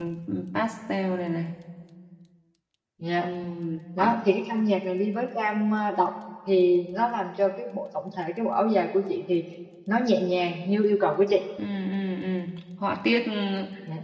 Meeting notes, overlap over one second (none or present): none